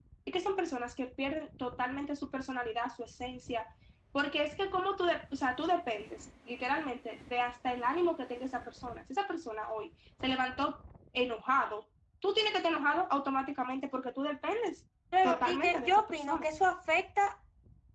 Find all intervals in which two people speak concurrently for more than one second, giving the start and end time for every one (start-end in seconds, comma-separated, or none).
15.2-16.5